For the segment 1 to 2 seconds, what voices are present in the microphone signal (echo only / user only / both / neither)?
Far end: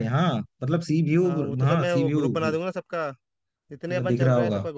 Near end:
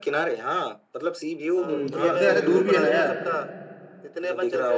both